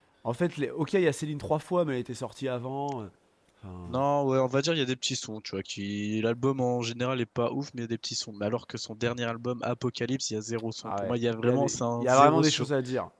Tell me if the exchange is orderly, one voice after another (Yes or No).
No